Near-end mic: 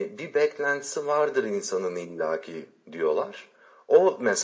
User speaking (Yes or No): No